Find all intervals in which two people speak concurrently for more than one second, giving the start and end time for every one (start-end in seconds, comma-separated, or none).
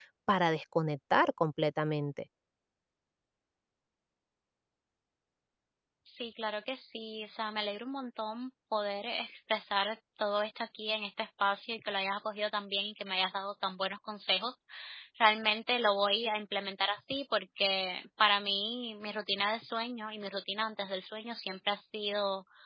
none